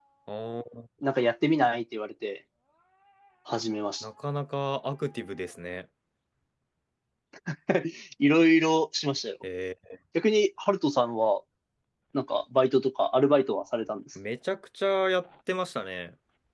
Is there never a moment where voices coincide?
Yes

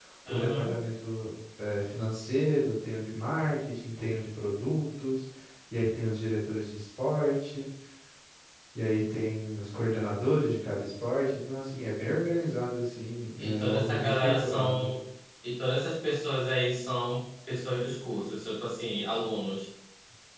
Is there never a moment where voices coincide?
No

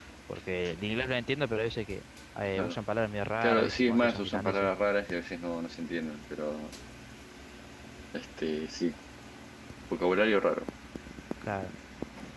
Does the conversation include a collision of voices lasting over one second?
Yes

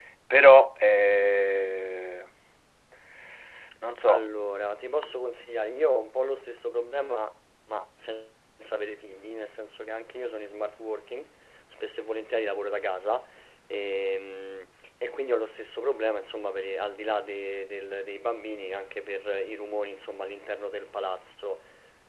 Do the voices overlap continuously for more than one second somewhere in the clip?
No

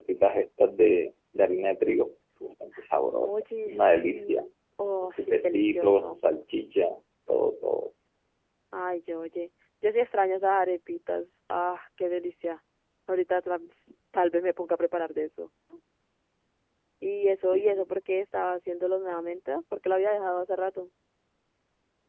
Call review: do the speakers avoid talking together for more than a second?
No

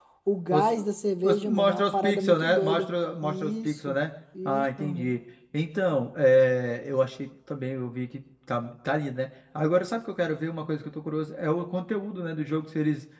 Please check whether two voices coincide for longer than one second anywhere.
Yes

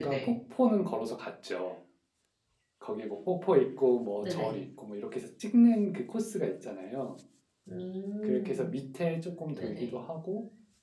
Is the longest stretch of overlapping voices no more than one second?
Yes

